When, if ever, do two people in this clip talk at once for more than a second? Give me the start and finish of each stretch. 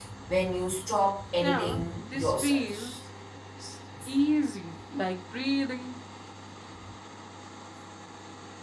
1.4-2.9

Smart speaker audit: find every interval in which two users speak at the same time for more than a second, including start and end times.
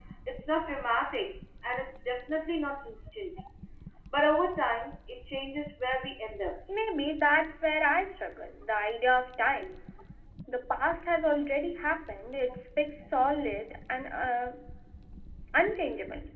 none

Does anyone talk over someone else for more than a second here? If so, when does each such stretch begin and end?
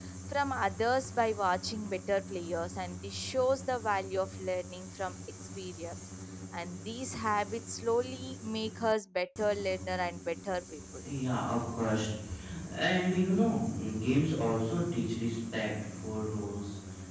none

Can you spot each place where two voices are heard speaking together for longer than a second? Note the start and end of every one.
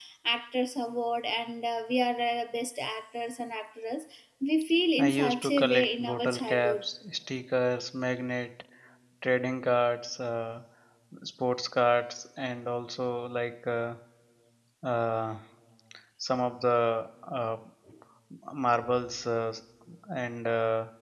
5.0-6.8

